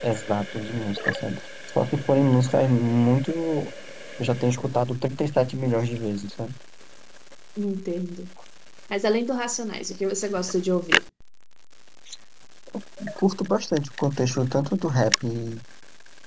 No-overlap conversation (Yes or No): Yes